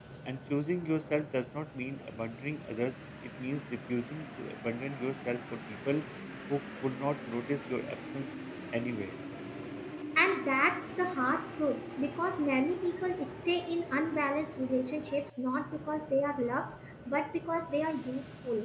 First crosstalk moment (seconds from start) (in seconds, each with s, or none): none